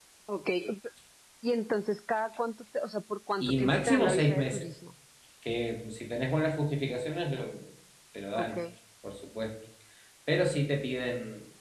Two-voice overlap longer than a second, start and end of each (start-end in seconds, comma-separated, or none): 3.4-4.7